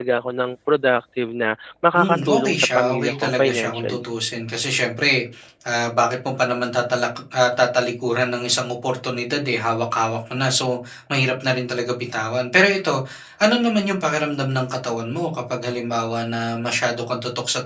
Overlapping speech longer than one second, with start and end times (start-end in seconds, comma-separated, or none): 2.0-4.0